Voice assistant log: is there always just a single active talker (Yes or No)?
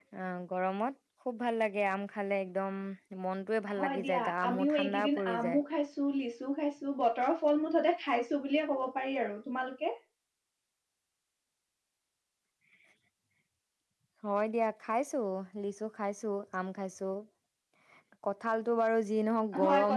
No